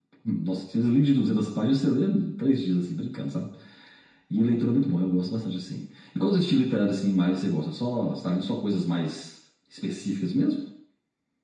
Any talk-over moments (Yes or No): No